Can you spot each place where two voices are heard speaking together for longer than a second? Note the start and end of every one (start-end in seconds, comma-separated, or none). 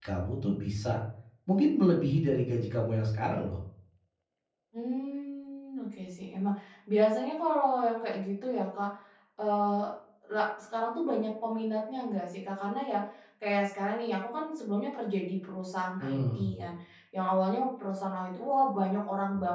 none